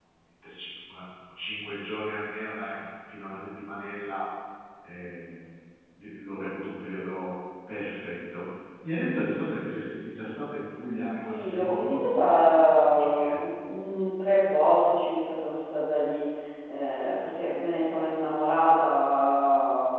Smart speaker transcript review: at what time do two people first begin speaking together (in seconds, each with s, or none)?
10.3 s